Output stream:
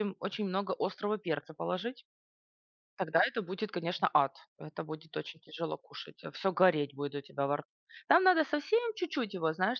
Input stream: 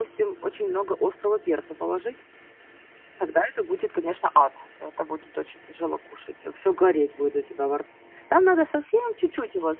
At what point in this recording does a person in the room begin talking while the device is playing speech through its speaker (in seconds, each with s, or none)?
none